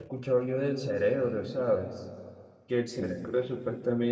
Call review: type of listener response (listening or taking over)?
listening